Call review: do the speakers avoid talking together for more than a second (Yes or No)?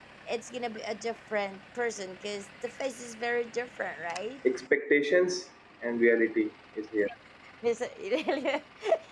Yes